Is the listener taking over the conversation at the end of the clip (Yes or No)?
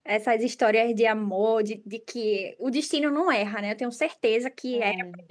No